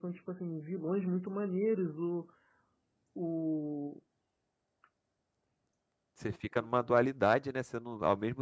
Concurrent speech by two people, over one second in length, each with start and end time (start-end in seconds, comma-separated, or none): none